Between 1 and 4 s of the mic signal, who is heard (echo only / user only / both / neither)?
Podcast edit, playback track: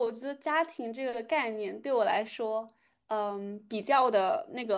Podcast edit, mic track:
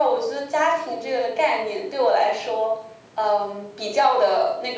echo only